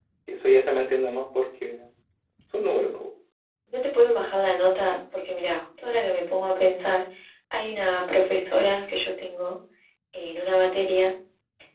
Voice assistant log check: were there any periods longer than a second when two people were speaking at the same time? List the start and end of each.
none

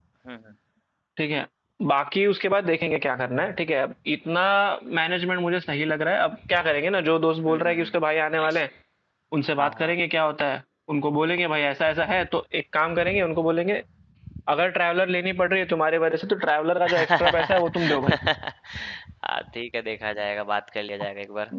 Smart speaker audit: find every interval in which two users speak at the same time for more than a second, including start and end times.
16.9-18.2

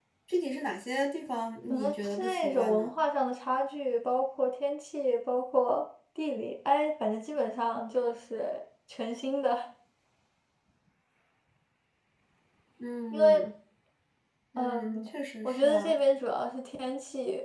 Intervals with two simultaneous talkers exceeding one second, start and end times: 1.7-2.9

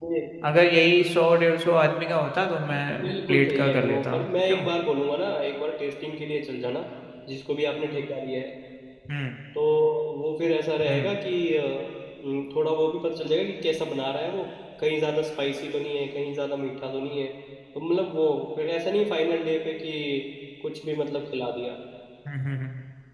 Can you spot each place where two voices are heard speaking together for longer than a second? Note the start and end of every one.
3.0-4.7

